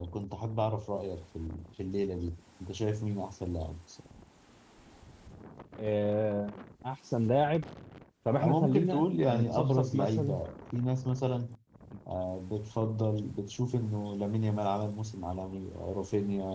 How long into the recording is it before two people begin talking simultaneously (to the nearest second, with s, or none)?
8 s